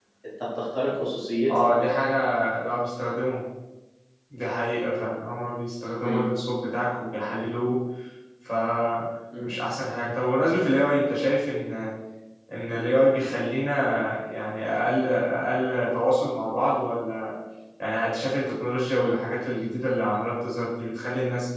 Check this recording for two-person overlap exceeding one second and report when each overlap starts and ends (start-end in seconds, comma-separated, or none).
none